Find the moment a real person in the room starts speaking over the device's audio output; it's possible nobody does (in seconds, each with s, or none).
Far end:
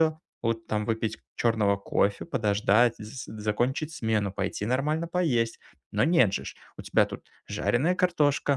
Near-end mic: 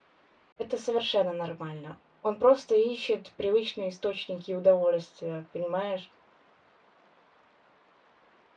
0.6 s